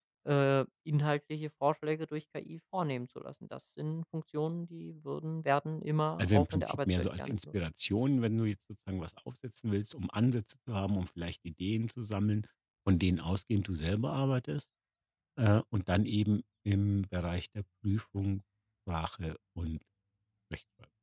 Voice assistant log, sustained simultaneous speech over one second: present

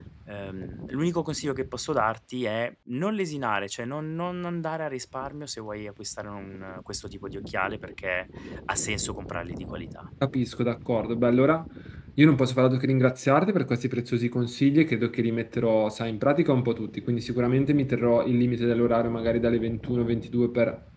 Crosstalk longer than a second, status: none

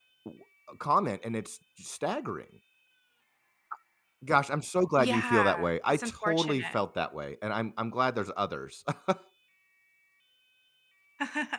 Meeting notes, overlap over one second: present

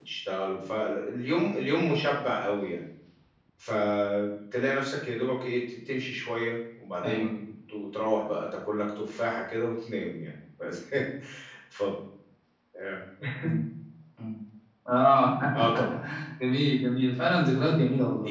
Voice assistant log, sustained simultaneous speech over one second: none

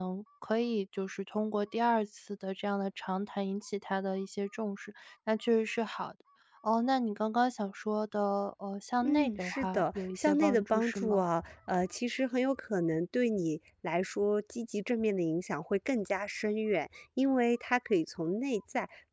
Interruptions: present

